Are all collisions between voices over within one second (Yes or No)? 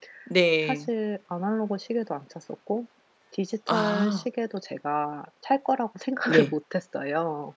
Yes